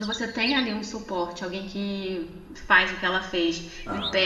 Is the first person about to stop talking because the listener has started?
No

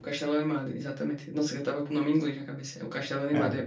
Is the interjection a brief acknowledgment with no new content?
Yes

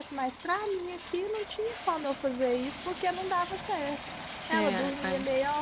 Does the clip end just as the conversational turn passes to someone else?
No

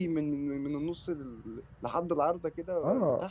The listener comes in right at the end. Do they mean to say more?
Yes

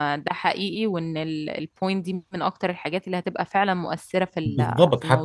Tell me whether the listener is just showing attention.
No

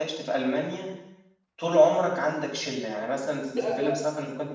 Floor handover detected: No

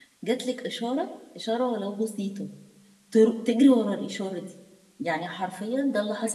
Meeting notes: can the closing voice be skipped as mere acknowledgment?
Yes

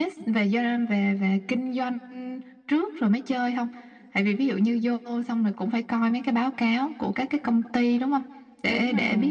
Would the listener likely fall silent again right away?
Yes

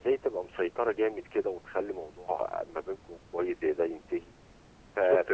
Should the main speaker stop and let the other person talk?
No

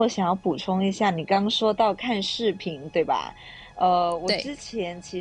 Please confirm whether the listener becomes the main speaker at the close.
No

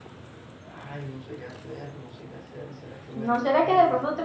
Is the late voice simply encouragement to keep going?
No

